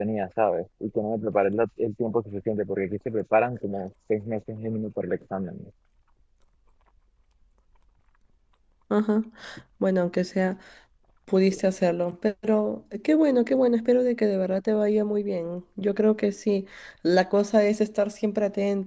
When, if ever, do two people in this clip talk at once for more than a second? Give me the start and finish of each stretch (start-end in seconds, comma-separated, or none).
none